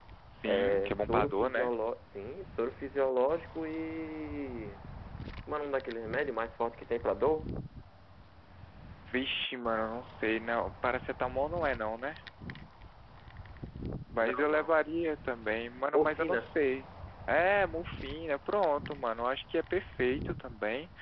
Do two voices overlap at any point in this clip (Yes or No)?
Yes